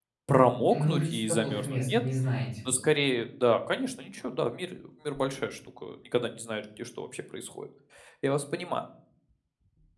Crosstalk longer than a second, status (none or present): present